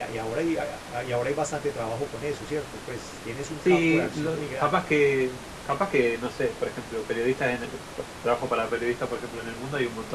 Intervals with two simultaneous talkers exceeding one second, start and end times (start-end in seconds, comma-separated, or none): 3.6-4.9